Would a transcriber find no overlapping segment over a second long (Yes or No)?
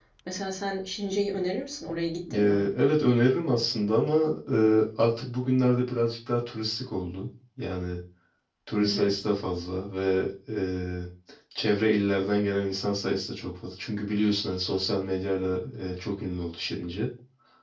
Yes